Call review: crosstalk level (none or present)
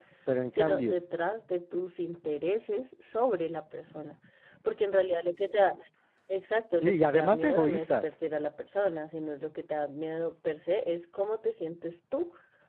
present